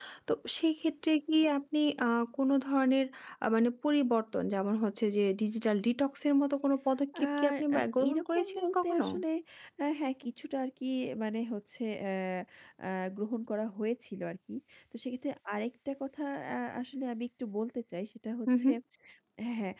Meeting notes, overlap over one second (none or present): present